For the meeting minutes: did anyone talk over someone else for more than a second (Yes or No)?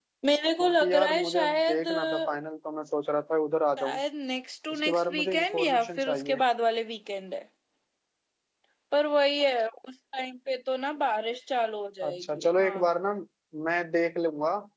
Yes